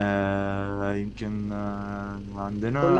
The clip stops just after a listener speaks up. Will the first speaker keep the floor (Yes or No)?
No